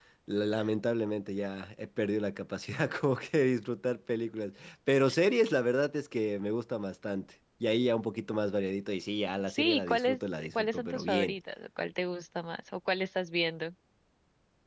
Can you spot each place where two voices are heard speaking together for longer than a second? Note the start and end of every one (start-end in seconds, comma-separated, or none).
9.5-11.3